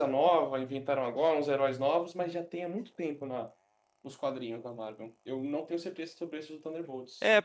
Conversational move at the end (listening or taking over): taking over